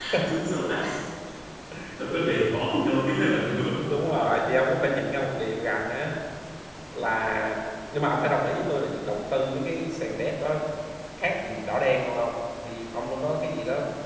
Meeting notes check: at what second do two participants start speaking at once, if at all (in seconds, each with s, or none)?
none